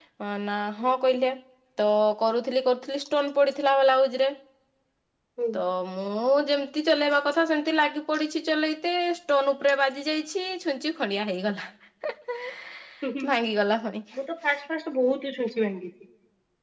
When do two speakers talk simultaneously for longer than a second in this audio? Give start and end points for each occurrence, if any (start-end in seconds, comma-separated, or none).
none